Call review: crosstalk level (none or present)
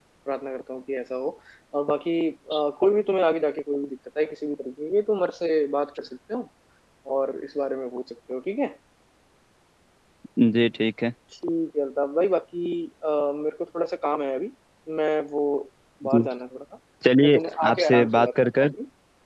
present